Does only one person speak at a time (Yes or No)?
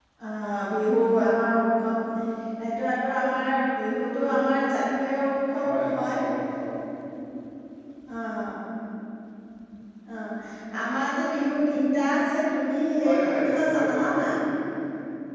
No